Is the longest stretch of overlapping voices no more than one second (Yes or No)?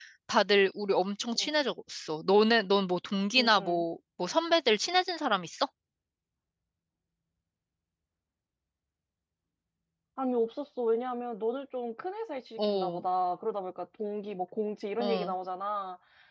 Yes